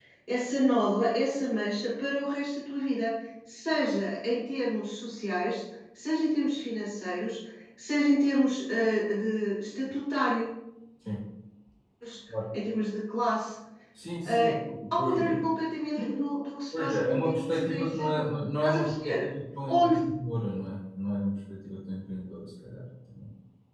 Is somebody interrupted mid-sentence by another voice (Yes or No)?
Yes